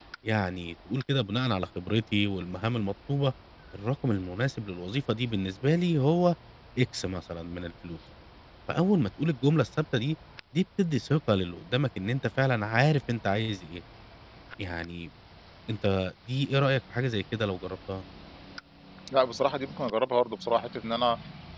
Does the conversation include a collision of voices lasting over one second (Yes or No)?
No